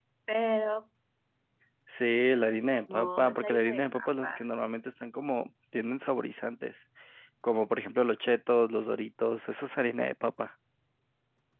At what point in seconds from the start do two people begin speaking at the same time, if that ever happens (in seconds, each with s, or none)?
2.9 s